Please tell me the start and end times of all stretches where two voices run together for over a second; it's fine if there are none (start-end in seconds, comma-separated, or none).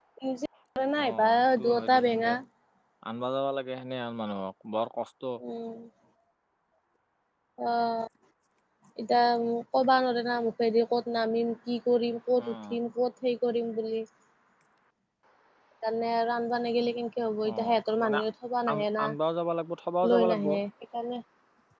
1.0-2.3